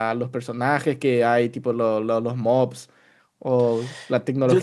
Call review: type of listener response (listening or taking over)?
listening